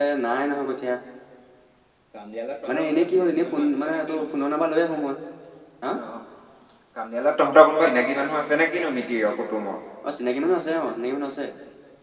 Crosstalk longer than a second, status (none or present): present